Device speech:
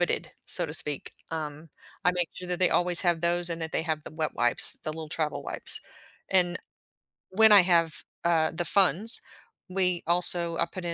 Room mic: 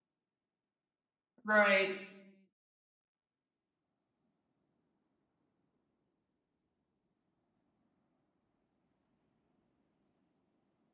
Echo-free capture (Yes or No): Yes